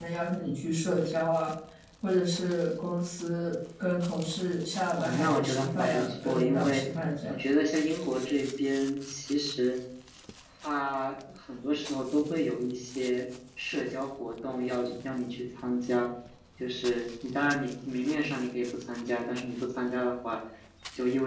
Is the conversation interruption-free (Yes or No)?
No